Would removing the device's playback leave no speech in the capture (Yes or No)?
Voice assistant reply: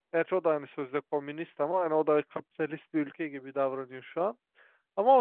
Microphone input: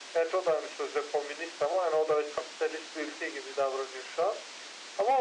Yes